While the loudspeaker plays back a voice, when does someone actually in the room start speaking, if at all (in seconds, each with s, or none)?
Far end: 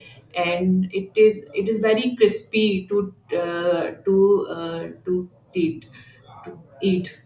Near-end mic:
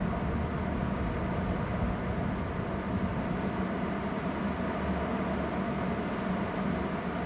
none